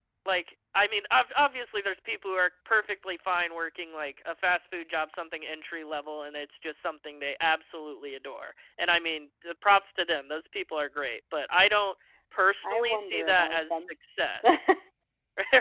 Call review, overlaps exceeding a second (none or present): present